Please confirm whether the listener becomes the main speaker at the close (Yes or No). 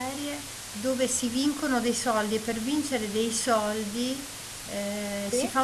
No